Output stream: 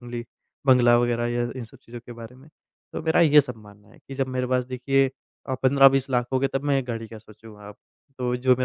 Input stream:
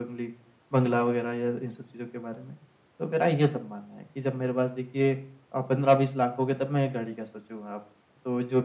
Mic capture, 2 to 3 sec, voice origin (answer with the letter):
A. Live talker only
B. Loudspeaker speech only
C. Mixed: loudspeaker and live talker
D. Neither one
B